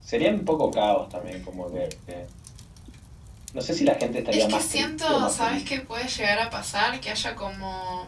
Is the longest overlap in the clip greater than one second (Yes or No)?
Yes